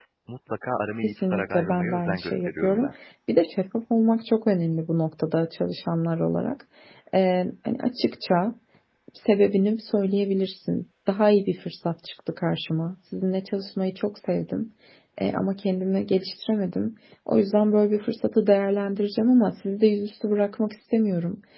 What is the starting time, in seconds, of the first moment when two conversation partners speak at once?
1.0 s

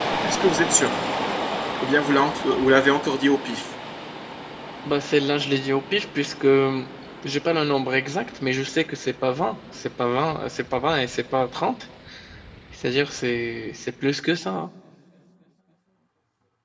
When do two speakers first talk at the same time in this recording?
none

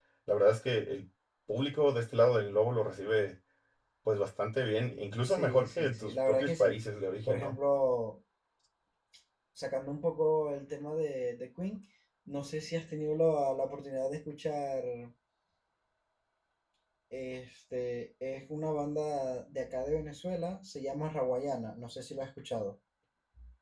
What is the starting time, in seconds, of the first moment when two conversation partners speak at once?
5.2 s

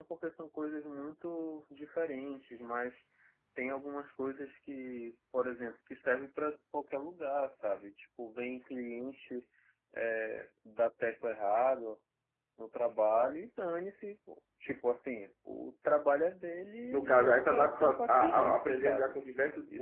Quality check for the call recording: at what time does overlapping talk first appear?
16.9 s

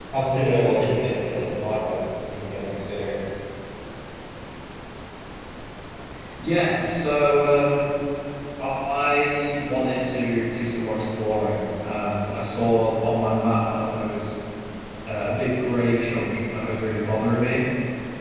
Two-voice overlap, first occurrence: none

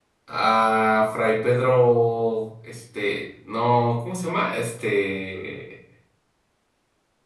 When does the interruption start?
none

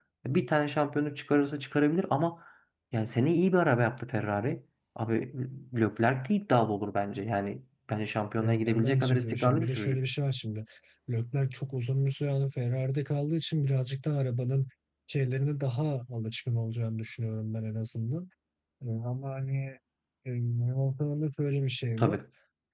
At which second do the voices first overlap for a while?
8.4 s

